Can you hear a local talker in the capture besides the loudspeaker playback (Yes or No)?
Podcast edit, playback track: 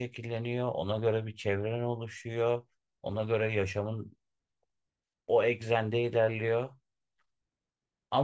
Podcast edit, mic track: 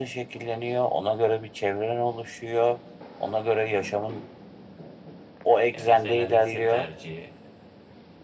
Yes